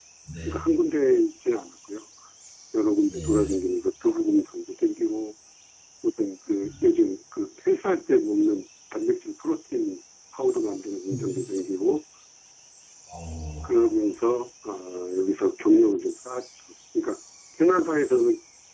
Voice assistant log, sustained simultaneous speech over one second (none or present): none